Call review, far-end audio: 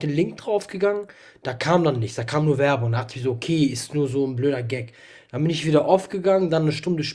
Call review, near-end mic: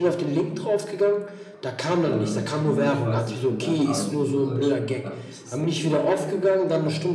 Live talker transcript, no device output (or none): Ähm, nur ich weiß nicht, ich finde halt R&B in Deutschland einfach nicht so sexy und so, weißt du.